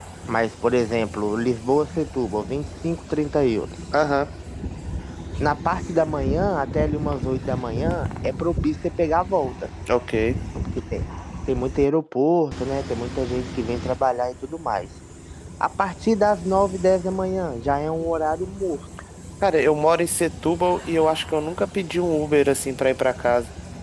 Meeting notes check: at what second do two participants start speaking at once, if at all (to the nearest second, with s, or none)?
none